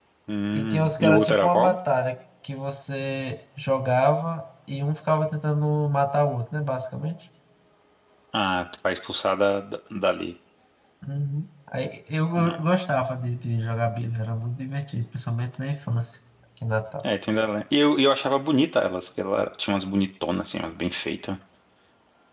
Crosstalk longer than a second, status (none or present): present